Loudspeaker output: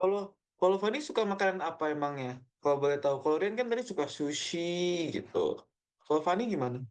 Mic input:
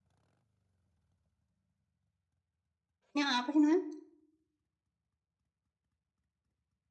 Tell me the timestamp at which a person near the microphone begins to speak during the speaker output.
3.1 s

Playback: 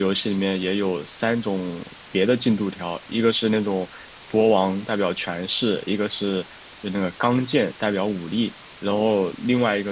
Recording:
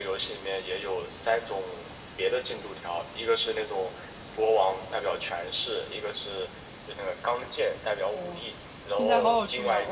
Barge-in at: 8.1 s

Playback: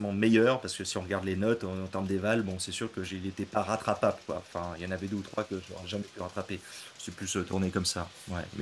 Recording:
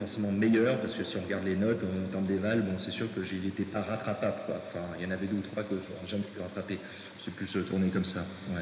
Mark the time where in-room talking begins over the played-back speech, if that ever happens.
none

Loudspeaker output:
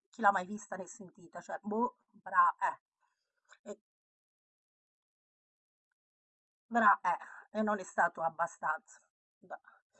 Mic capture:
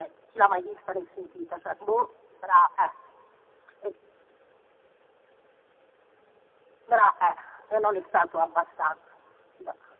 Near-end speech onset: none

